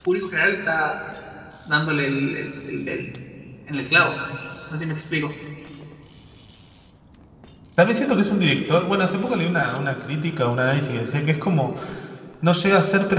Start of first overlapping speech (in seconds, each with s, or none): none